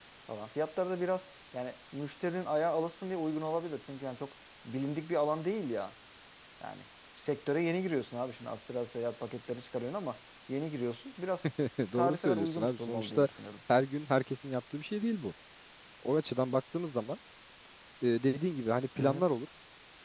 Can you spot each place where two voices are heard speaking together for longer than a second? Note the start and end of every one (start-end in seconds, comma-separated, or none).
11.9-13.3